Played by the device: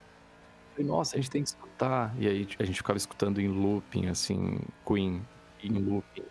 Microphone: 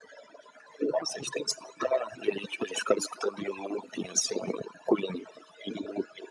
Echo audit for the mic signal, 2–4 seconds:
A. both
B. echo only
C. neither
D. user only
B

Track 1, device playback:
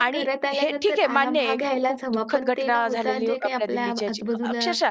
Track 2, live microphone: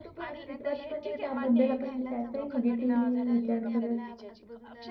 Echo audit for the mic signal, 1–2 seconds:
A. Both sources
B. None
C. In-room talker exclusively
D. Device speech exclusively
A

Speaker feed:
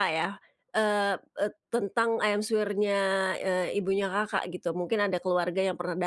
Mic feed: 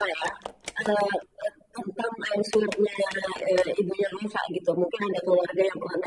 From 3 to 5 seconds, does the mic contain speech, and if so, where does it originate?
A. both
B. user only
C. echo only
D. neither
C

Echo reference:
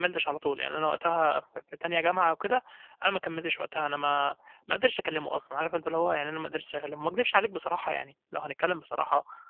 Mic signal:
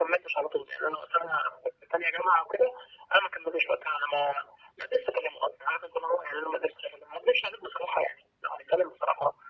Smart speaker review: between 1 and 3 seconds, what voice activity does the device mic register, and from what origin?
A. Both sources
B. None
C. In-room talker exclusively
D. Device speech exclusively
D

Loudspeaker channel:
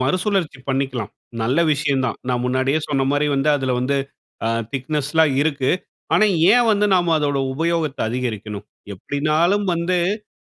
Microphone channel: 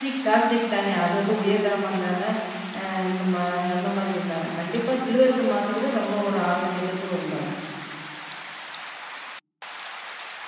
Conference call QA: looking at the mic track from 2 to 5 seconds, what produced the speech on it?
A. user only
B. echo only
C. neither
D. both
A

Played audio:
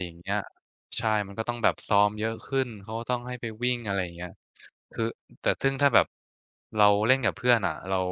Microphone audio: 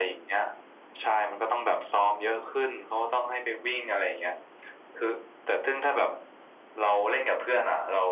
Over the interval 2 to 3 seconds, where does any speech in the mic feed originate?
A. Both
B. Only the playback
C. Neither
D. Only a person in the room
B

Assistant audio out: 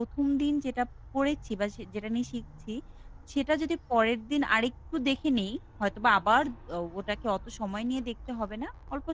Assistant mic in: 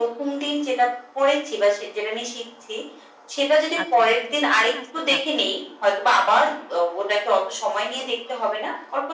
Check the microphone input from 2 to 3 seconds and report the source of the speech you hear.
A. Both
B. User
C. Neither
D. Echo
D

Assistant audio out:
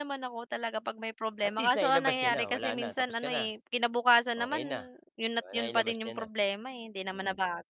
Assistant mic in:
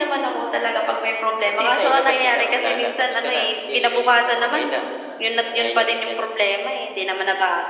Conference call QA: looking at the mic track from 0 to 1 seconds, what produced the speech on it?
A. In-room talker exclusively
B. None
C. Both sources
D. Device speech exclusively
D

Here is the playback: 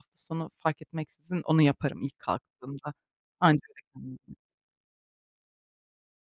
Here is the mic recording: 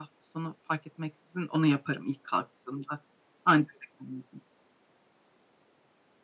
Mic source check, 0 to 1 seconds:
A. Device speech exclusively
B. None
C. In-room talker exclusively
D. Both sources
A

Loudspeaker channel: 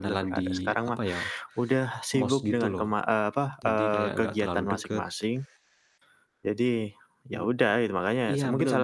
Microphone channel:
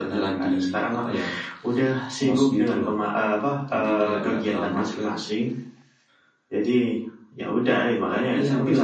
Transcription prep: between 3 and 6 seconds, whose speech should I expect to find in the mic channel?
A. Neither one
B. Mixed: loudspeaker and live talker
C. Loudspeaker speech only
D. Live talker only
C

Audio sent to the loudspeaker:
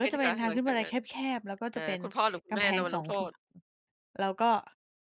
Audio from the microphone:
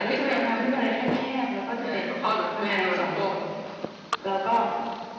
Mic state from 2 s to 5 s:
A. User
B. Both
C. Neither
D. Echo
D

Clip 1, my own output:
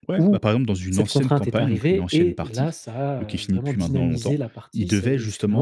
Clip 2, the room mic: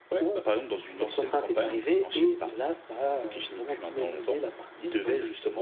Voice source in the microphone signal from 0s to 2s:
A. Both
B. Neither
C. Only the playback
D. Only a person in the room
C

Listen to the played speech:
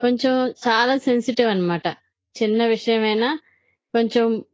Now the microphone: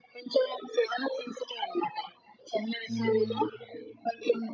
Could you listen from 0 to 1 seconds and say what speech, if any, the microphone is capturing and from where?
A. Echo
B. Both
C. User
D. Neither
A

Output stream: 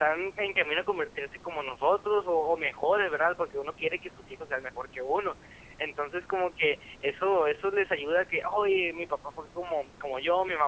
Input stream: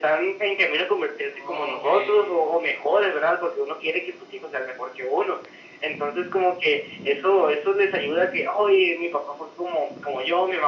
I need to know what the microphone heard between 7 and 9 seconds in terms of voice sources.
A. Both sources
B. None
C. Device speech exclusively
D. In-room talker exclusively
C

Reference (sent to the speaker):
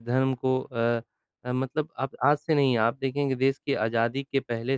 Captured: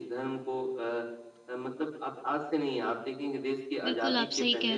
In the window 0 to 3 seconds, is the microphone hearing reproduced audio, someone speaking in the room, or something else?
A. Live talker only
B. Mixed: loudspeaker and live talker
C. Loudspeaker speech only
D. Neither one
C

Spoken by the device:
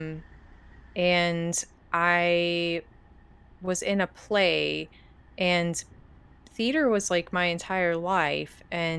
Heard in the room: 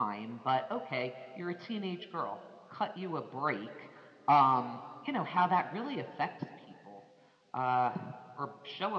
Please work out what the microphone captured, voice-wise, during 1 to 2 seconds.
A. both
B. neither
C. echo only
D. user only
D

